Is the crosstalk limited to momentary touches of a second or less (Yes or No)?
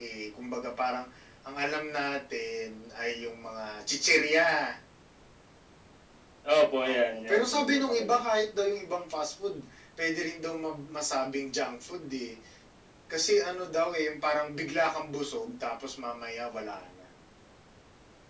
No